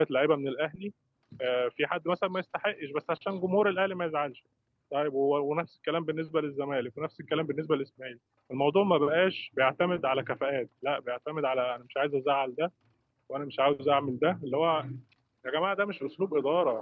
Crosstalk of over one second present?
No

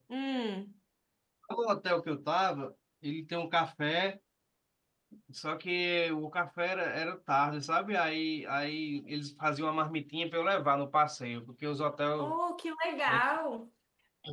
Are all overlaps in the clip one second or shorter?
Yes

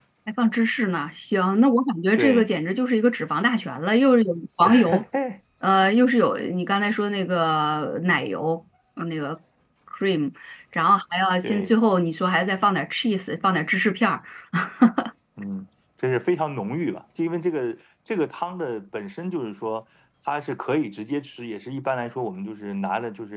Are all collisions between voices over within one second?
Yes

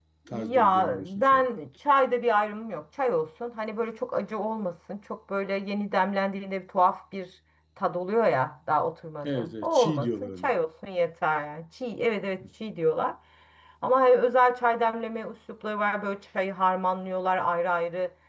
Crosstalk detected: Yes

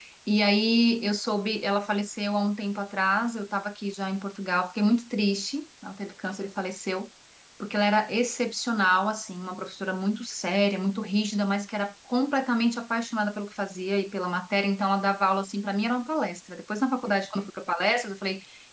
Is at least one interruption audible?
No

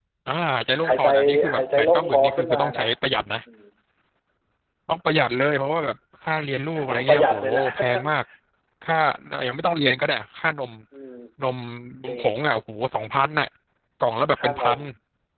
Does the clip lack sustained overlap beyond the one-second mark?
No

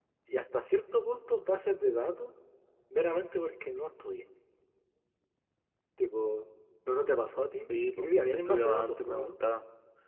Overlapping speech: Yes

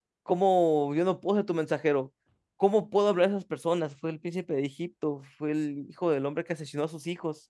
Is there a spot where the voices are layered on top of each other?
No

